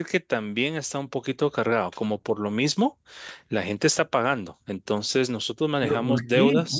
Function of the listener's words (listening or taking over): taking over